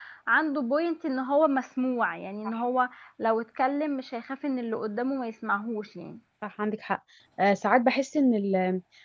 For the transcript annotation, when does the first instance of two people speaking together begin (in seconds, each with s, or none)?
none